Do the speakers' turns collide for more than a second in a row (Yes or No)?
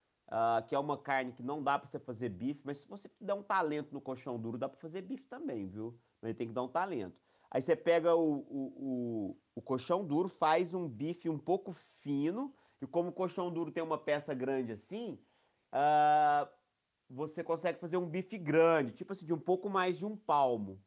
No